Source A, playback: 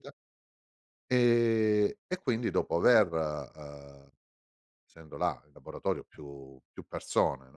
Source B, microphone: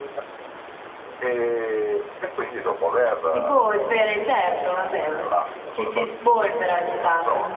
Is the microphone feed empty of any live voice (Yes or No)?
No